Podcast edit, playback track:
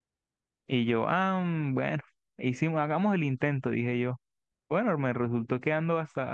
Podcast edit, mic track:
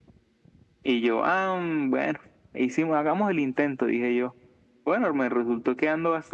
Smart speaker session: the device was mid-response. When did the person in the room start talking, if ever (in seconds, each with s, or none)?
none